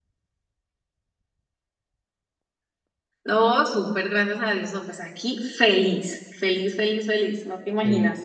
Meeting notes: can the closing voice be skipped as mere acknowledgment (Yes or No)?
No